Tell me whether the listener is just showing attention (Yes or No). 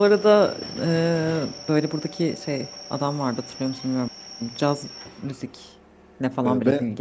No